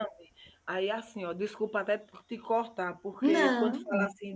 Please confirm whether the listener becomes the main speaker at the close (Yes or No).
No